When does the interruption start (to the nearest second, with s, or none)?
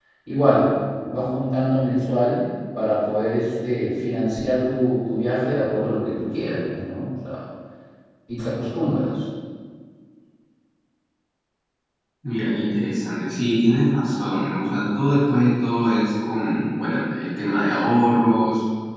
none